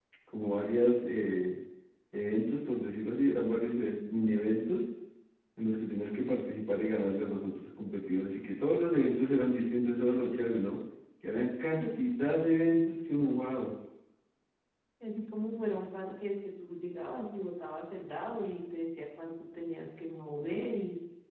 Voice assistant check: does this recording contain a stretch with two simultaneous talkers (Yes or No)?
No